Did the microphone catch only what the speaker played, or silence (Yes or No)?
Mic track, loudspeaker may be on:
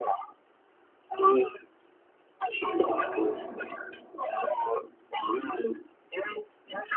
No